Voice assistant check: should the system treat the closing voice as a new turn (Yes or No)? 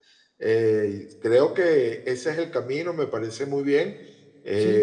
Yes